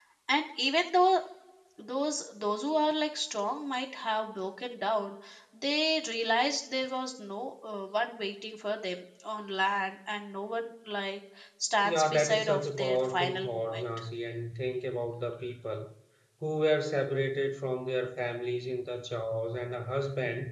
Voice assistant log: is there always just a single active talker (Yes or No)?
No